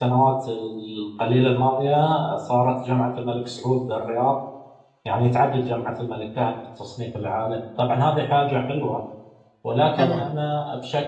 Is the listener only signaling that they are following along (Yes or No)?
Yes